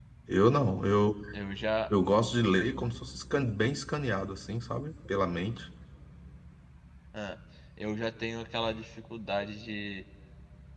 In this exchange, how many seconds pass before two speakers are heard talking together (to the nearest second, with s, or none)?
none